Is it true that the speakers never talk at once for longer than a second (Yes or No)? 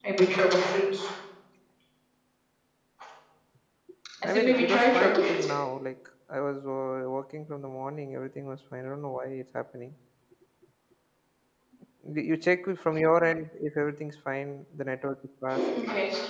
No